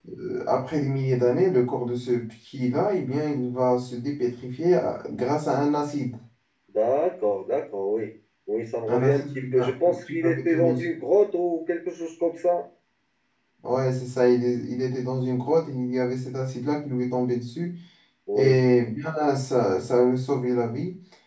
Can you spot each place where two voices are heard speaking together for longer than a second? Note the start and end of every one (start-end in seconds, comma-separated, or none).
8.9-10.8